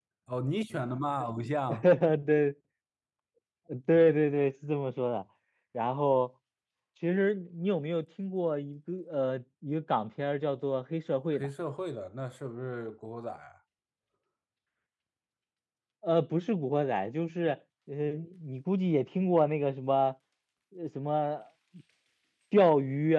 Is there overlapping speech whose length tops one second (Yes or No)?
No